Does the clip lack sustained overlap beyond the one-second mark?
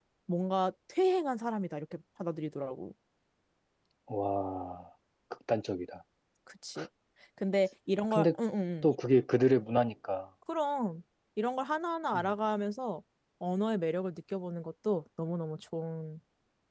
Yes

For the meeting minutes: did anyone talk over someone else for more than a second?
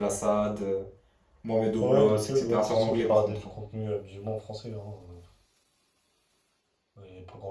Yes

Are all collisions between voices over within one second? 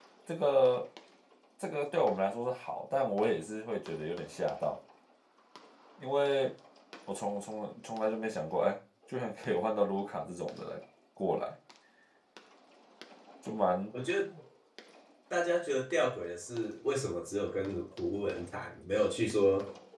Yes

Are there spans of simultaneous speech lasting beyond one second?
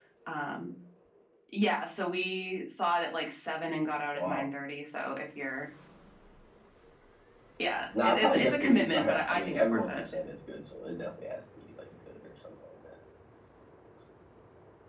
Yes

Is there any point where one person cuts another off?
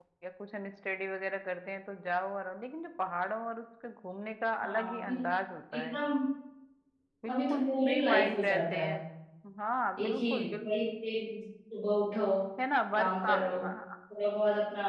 Yes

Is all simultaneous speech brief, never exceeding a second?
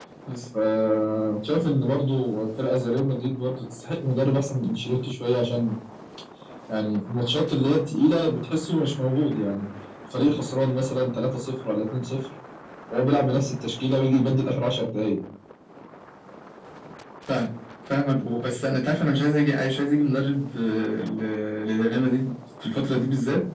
Yes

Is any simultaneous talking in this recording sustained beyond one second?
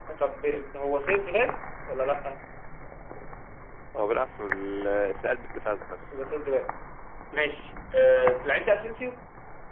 No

